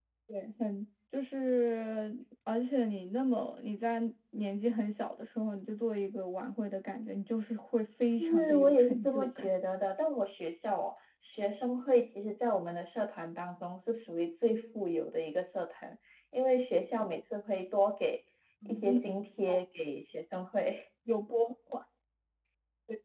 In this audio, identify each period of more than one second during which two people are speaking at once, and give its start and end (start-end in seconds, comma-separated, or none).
8.2-9.5